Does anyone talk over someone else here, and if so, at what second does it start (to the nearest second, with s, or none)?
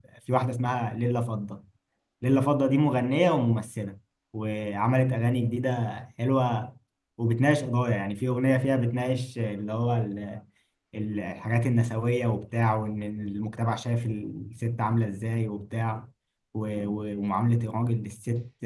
none